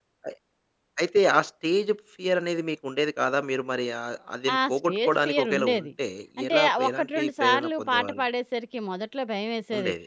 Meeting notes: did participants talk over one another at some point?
Yes, from 4.5 s

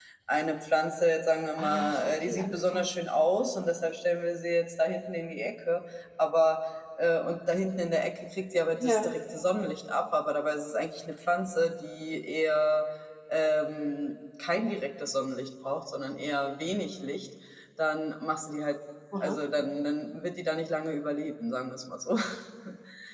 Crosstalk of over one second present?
Yes, from 1.6 s

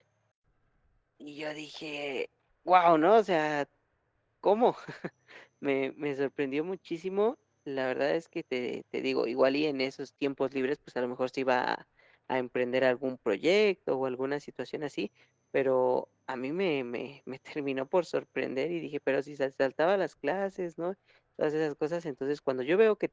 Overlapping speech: No

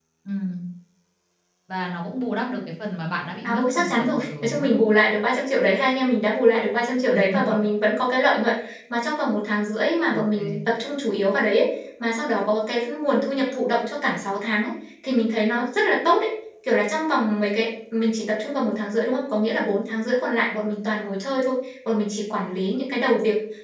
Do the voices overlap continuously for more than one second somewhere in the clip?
Yes, from 3.4 s

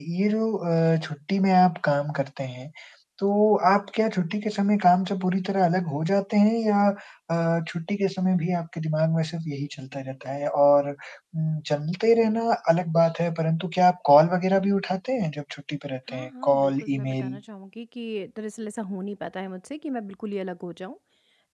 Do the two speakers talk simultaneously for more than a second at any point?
Yes, from 16.1 s

